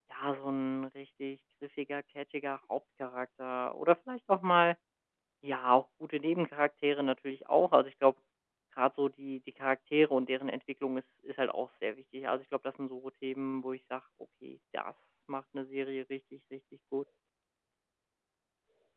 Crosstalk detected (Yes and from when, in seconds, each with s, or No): No